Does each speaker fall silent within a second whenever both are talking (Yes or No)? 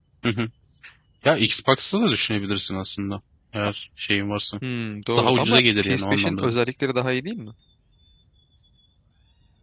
No